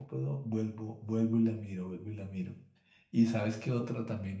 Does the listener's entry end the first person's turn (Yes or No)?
No